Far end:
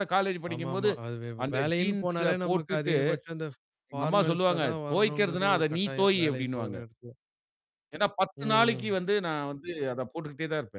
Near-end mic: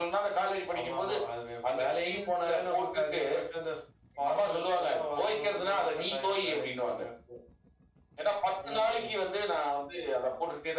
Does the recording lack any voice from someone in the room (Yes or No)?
Yes